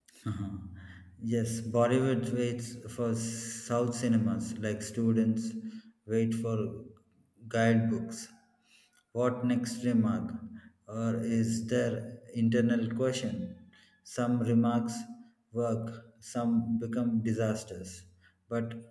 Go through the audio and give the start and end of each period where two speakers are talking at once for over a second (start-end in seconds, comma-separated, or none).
none